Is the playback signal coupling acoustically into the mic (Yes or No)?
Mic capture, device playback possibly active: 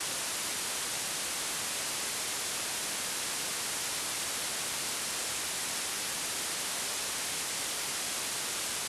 No